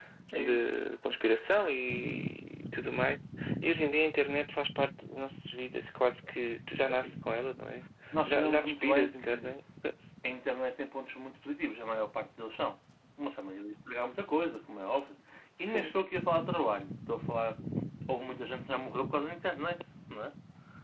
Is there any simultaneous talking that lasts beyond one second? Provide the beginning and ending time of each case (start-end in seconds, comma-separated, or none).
8.3-9.5